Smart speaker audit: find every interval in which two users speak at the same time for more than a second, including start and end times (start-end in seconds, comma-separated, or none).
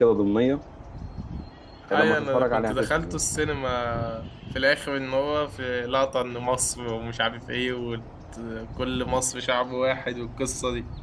1.9-3.5